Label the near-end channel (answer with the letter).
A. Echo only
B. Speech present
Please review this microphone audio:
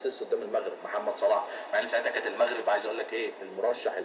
A